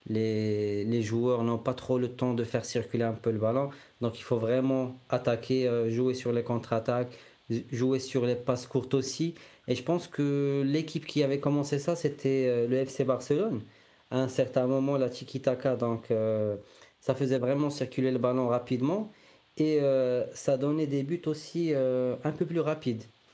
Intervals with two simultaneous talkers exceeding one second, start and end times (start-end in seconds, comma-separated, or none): none